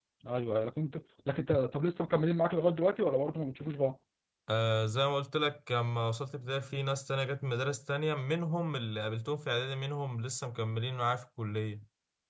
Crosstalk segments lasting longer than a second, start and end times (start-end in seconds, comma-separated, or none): none